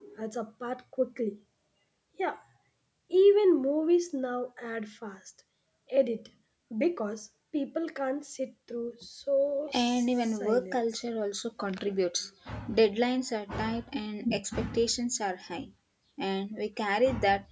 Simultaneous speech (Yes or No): Yes